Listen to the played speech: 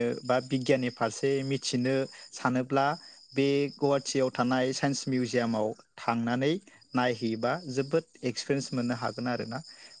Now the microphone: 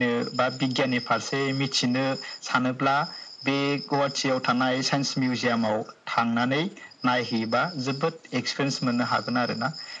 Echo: present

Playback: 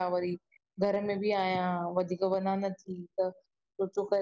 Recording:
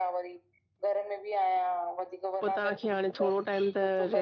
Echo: present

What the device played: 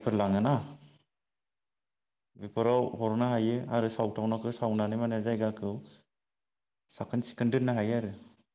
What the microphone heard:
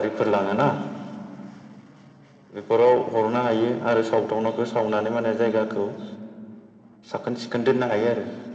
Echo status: present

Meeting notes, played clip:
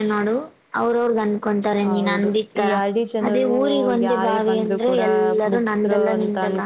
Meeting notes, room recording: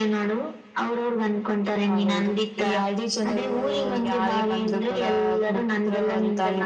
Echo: present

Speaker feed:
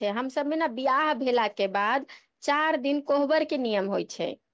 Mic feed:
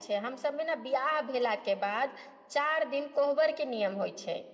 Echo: present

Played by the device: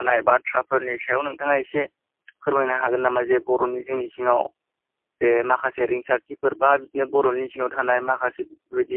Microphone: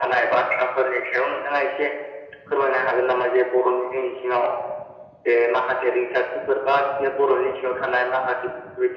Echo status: present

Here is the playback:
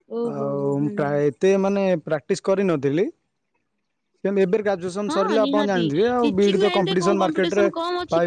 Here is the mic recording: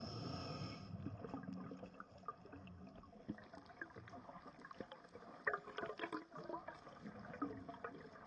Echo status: none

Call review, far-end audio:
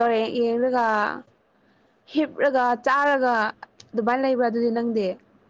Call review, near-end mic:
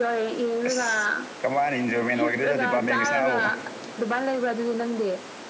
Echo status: present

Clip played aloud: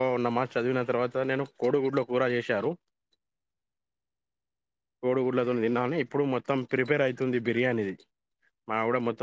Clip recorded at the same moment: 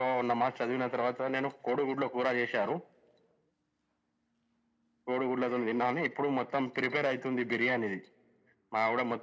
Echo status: present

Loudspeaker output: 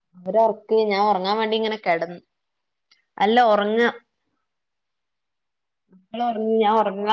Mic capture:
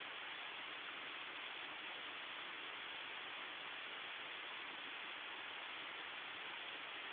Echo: none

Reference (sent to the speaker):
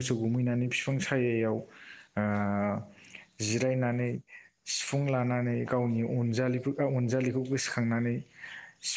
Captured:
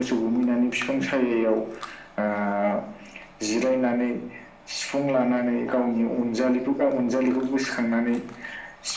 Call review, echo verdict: present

